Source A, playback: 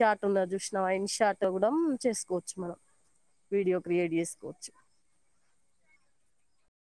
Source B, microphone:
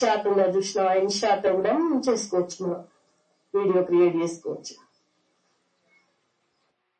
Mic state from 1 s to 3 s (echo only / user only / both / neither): echo only